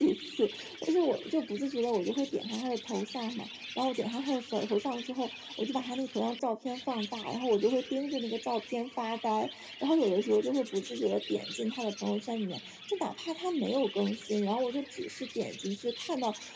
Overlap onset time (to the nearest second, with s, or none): none